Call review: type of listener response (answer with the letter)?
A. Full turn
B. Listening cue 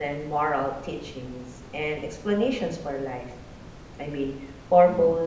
B